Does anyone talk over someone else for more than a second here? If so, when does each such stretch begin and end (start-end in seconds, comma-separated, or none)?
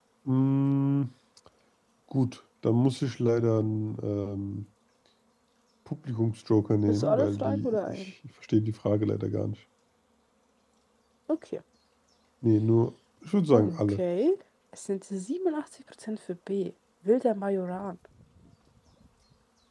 6.9-8.1